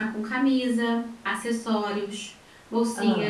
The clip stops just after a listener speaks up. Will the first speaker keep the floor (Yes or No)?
Yes